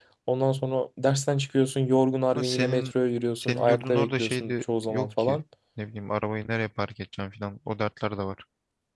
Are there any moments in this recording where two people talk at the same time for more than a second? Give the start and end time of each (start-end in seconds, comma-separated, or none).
3.4-5.4